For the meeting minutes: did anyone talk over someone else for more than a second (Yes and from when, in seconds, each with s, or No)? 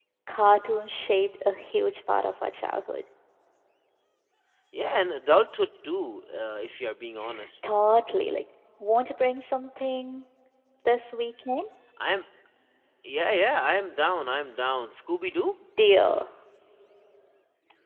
No